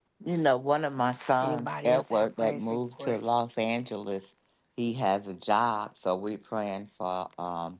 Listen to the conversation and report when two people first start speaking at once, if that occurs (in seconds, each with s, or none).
1.4 s